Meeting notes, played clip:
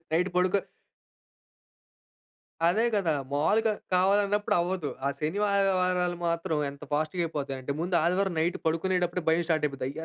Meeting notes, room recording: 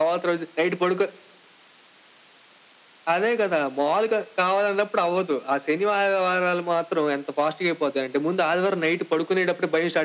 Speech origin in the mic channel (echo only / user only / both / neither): echo only